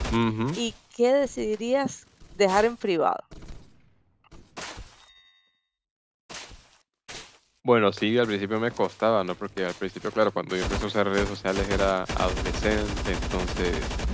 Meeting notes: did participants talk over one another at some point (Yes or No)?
No